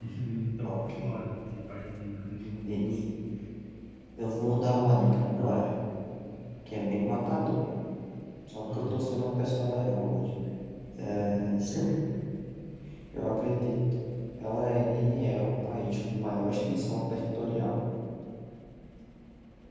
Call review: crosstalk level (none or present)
present